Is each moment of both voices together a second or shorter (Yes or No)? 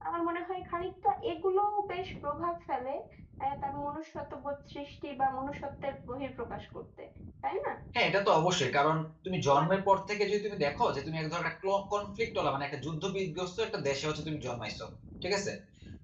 Yes